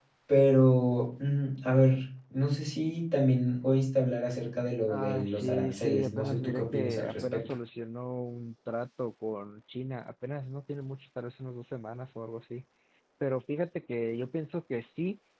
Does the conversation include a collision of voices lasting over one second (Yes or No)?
Yes